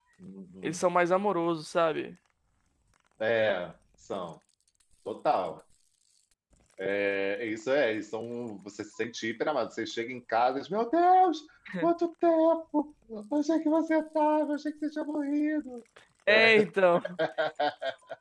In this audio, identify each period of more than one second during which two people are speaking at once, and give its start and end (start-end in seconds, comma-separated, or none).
none